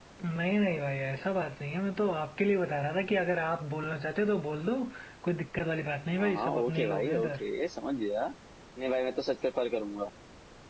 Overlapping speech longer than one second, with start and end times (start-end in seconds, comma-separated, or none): 6.2-7.4